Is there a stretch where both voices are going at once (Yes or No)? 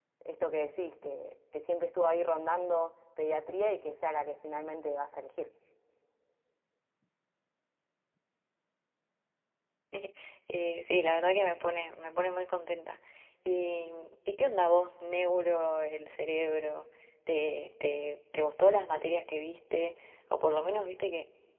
No